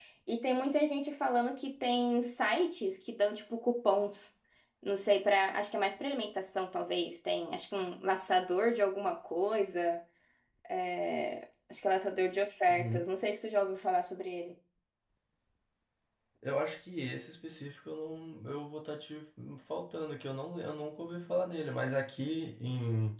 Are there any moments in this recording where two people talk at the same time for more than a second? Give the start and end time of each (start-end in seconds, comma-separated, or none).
none